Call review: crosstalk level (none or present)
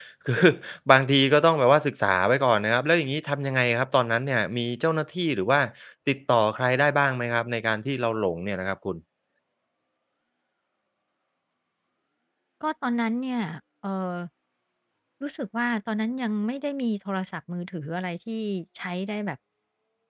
none